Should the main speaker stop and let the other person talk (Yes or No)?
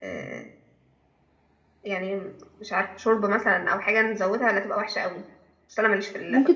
Yes